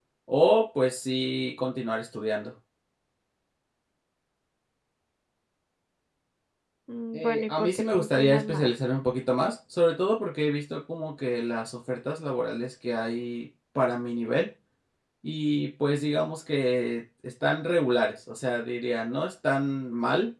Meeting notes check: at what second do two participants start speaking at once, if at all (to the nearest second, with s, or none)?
7 s